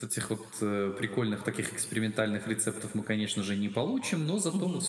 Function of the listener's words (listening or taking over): listening